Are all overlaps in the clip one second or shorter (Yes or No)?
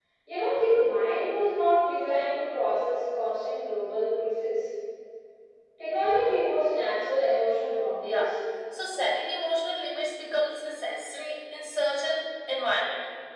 Yes